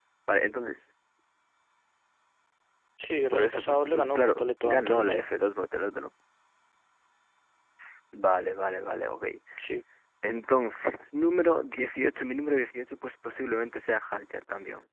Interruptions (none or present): present